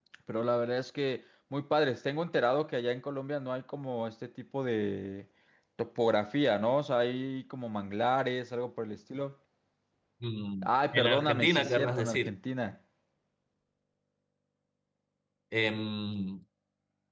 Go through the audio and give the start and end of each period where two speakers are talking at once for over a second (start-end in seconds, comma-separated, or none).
10.6-12.3